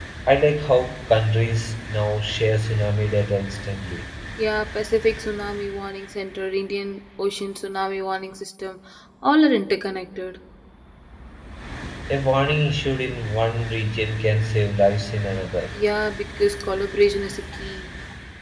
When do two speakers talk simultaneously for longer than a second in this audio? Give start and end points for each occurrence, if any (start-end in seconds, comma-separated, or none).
none